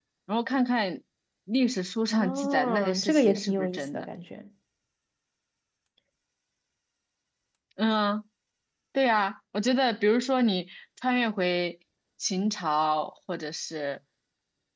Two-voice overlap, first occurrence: 2 s

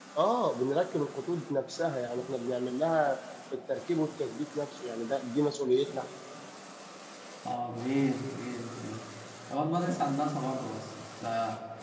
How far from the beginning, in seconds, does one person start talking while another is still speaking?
none

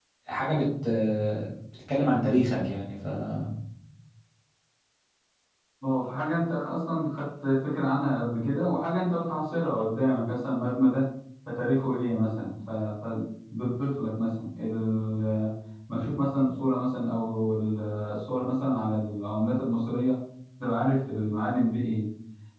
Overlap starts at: none

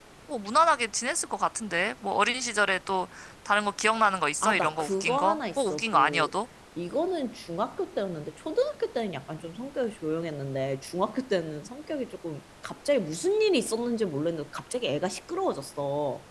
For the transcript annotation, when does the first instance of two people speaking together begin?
4 s

